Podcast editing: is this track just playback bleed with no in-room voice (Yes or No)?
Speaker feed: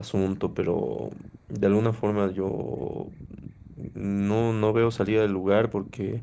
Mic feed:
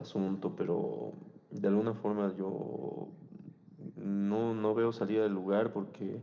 Yes